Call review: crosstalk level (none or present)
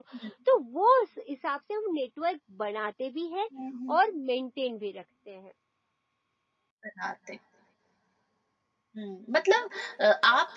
none